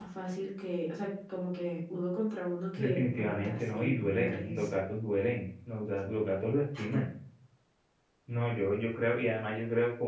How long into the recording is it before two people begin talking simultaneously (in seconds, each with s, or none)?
2.8 s